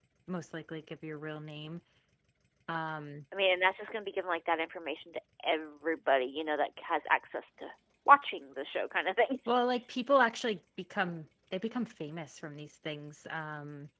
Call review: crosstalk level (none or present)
none